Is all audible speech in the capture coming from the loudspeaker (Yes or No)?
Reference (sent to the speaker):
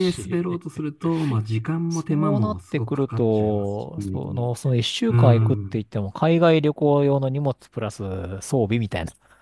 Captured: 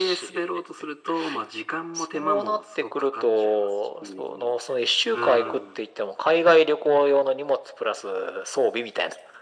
Yes